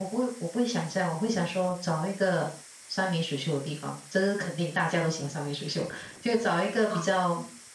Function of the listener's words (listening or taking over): listening